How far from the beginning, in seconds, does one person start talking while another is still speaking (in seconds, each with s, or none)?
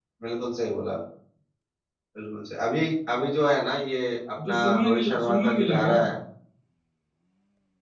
4.4 s